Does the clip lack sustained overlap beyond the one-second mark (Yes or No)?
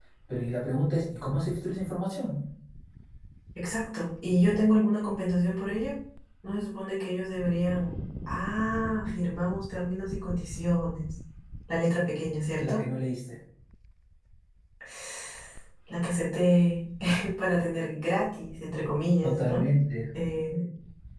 Yes